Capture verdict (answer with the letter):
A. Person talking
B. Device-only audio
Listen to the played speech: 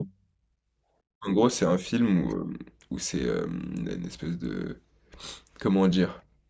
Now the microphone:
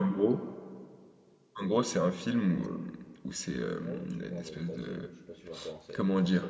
A